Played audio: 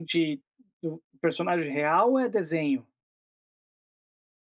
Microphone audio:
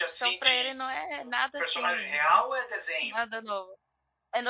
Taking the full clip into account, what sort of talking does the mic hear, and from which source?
both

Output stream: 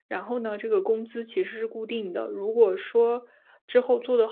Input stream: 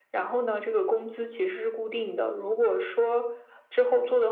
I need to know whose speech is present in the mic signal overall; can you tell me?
echo only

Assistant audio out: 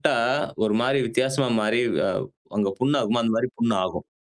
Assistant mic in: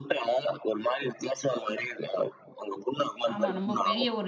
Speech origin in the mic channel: both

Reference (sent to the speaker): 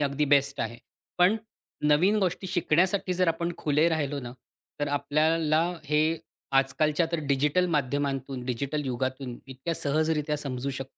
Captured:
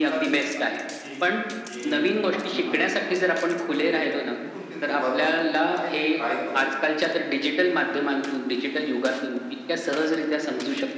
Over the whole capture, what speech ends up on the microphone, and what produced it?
both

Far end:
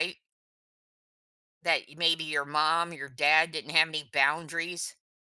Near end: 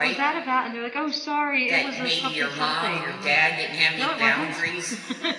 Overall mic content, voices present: both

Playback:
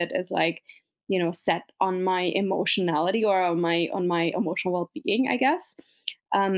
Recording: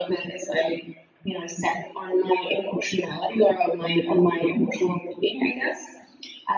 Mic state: echo only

